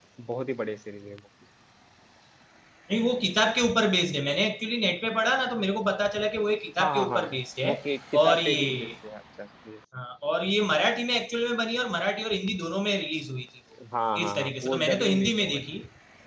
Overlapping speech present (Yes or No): Yes